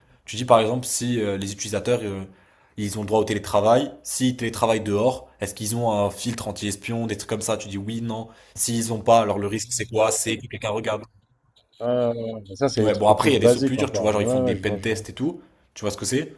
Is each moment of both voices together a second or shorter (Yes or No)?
No